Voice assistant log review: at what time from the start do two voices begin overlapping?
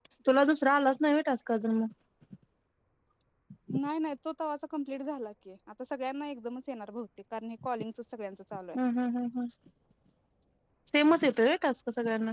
none

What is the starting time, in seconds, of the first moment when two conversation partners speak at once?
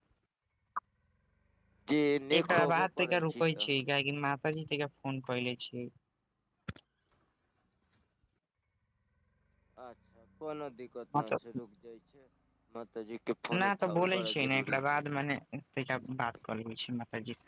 2 s

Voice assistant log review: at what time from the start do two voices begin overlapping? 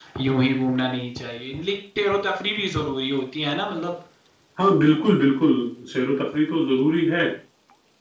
none

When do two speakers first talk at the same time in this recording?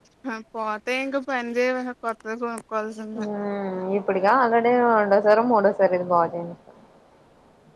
none

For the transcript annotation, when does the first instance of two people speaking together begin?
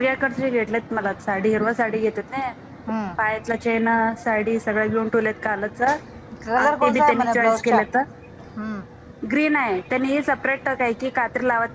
6 s

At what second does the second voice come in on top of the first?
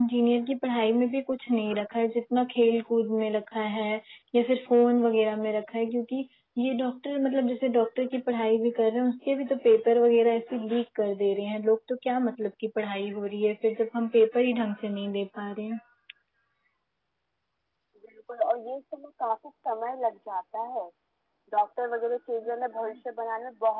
none

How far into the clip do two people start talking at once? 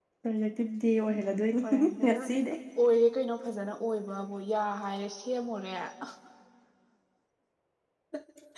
1 s

